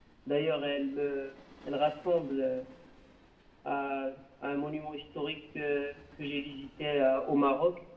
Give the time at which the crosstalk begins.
none

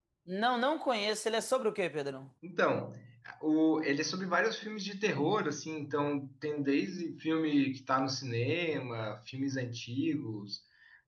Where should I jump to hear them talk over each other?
none

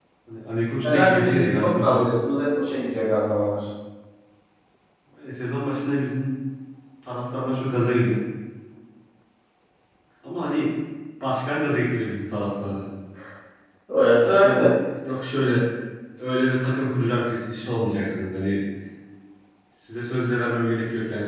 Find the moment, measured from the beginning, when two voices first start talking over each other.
0.8 s

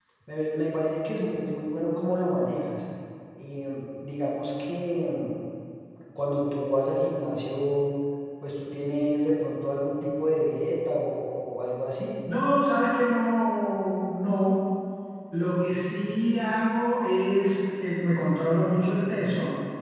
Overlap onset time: none

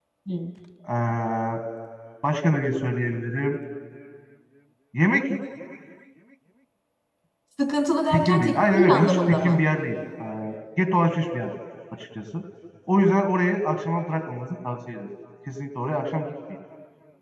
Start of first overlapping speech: 8.1 s

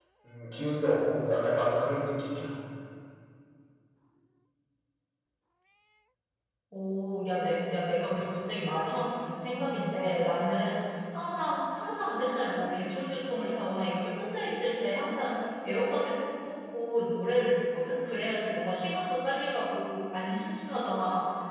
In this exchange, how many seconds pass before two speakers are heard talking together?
none

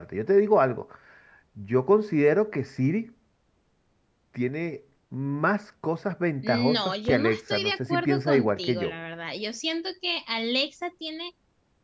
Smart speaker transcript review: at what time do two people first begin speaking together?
6.4 s

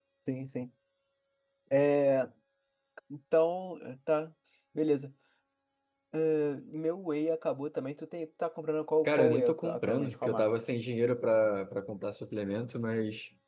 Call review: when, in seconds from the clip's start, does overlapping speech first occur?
9.0 s

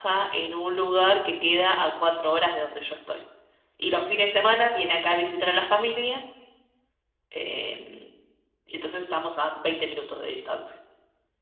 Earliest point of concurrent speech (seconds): none

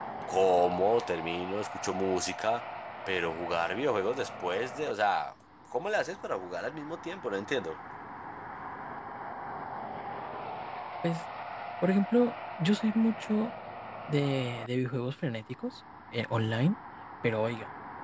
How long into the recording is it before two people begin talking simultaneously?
none

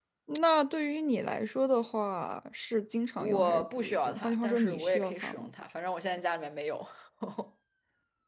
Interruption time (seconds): 3.2 s

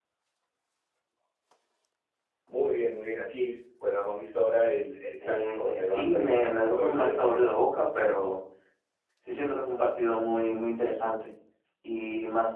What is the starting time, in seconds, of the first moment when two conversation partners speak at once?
5.2 s

